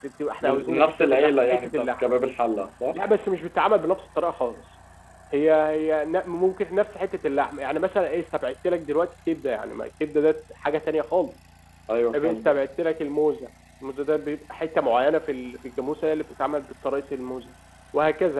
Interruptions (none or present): present